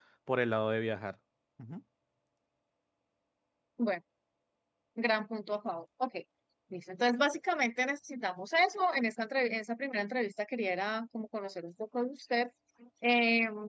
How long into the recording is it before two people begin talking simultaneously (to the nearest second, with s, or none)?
none